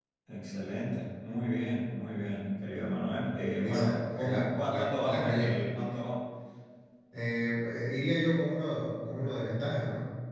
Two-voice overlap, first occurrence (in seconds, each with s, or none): 3.6 s